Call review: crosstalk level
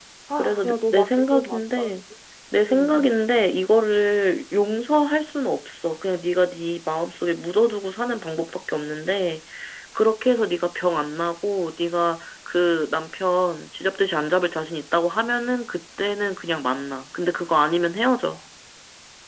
present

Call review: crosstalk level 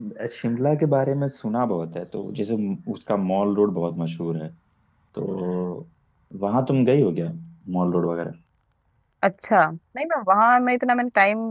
none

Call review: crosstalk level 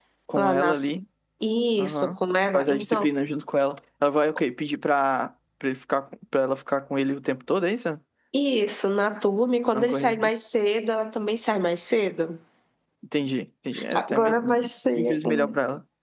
present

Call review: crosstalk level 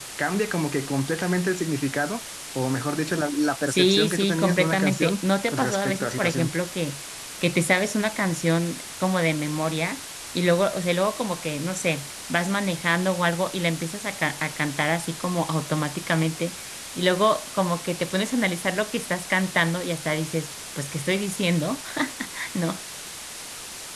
present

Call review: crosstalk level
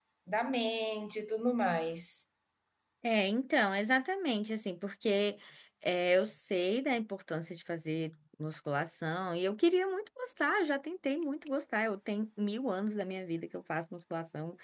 none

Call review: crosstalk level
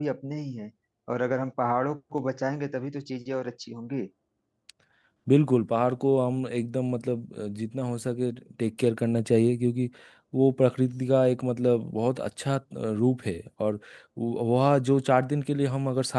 none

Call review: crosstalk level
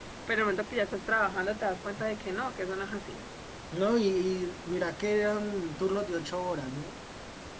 none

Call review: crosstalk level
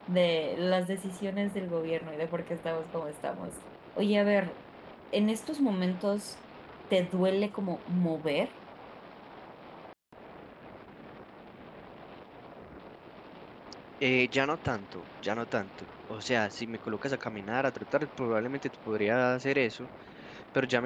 none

